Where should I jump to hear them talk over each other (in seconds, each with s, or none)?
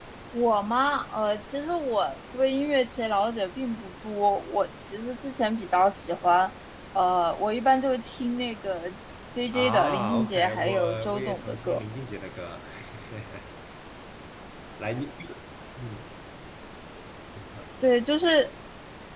9.5 s